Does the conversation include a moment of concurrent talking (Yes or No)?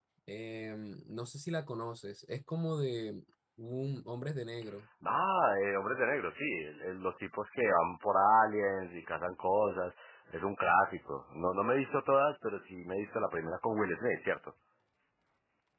No